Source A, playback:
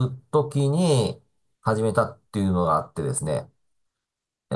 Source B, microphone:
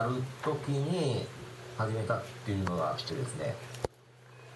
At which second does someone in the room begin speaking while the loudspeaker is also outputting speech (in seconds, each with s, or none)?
none